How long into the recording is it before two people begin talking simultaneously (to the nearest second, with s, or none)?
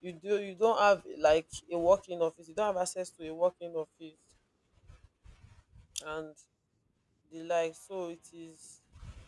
none